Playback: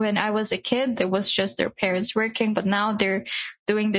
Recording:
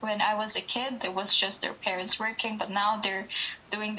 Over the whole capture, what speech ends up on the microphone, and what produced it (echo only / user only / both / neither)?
echo only